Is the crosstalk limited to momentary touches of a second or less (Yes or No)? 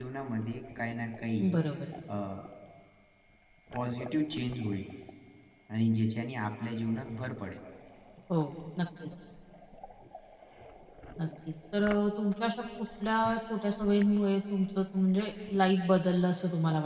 Yes